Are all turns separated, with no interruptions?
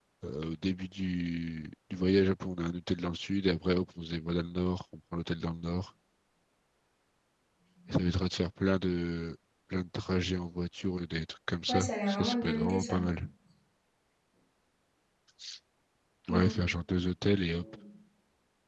No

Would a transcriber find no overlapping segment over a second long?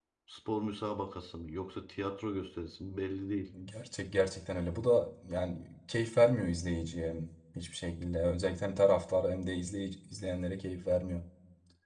Yes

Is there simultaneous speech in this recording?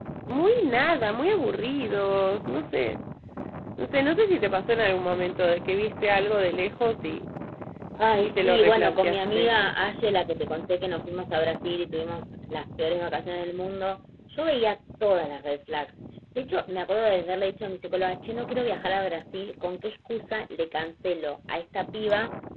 Yes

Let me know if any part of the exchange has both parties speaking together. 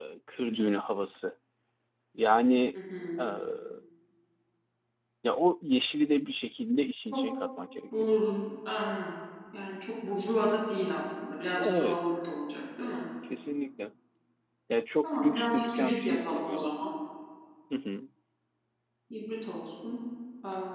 Yes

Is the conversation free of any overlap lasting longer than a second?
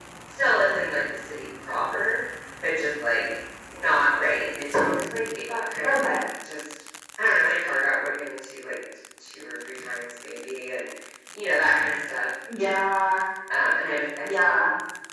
Yes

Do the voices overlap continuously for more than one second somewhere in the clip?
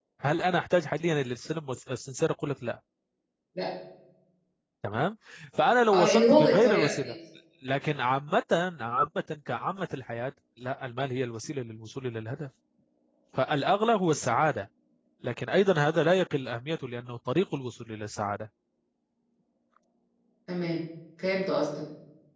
Yes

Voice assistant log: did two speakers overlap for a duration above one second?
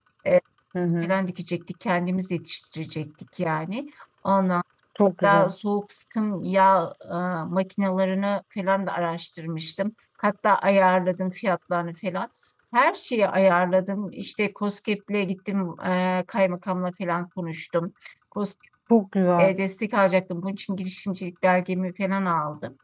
No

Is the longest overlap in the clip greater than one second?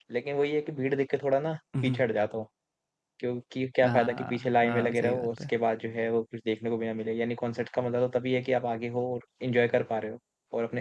Yes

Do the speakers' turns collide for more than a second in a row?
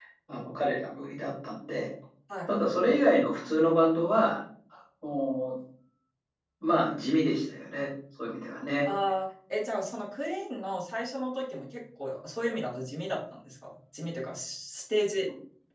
No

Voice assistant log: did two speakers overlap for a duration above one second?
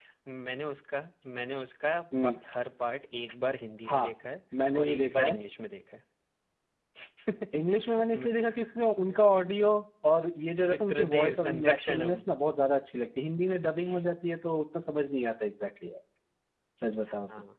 Yes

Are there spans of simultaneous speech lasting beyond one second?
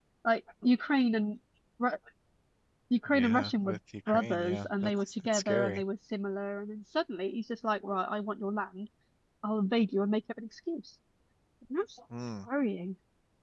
Yes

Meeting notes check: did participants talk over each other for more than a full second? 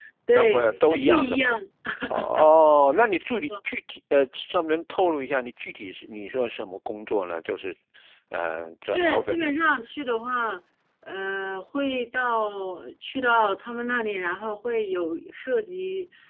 Yes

